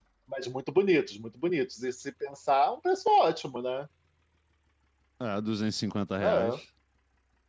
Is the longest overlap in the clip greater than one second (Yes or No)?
No